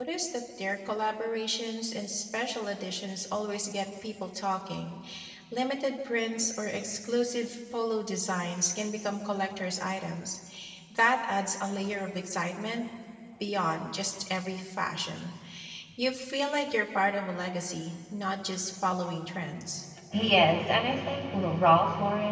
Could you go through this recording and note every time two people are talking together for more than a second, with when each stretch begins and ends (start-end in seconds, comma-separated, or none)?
none